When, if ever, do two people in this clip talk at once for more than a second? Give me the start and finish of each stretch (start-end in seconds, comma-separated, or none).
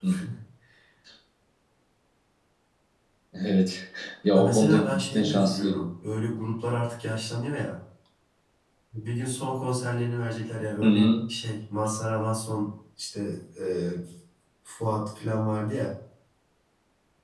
4.3-5.7